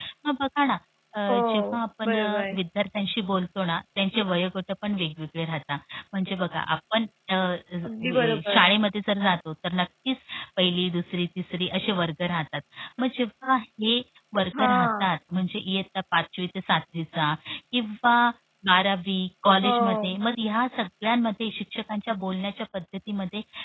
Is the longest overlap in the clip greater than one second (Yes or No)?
Yes